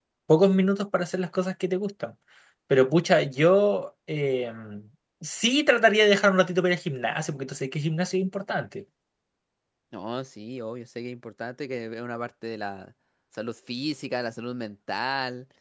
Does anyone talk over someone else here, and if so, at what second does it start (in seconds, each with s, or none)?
none